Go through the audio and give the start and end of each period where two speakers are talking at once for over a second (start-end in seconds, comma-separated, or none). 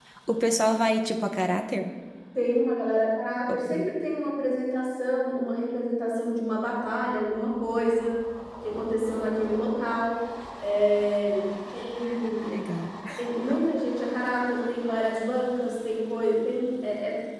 none